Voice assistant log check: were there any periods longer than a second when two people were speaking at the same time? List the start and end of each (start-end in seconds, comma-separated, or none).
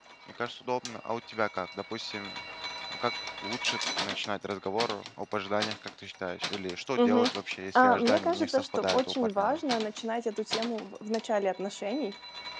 7.8-9.6